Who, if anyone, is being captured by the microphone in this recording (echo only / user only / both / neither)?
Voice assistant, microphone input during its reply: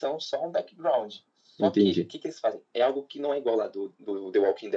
both